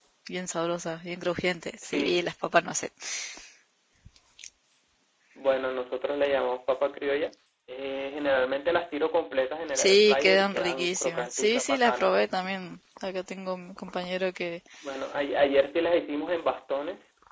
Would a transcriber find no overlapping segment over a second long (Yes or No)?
No